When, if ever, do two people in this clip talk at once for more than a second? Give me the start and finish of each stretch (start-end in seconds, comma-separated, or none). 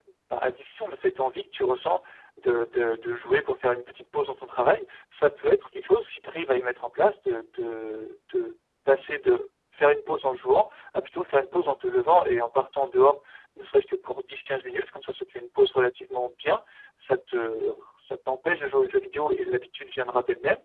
none